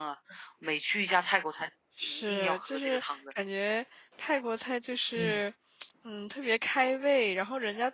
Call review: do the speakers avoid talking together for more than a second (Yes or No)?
No